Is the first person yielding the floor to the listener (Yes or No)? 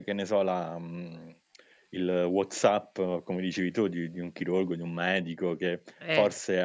No